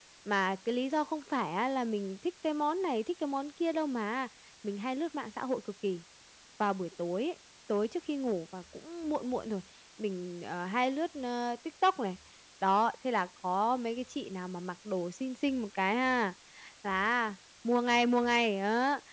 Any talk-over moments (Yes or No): No